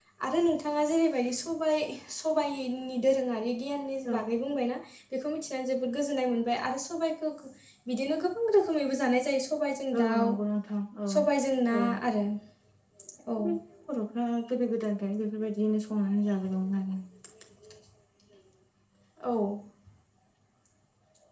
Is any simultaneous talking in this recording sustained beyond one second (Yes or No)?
No